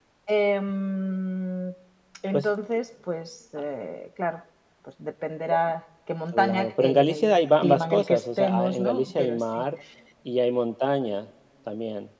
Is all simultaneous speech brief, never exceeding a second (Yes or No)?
No